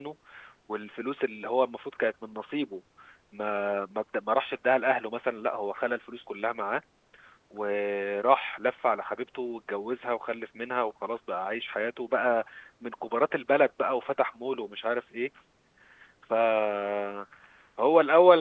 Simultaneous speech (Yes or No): No